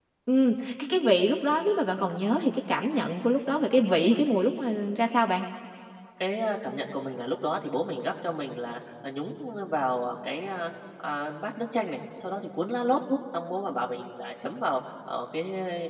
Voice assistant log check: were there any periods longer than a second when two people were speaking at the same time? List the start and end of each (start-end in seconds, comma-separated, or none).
none